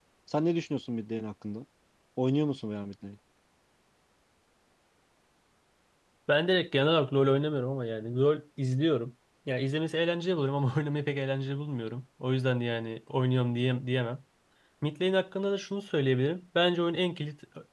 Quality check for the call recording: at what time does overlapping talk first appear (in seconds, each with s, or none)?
none